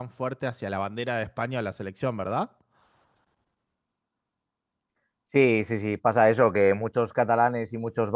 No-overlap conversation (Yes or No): Yes